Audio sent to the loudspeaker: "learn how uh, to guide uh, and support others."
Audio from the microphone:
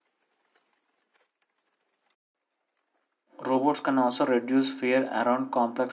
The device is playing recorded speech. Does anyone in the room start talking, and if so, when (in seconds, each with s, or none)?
3.4 s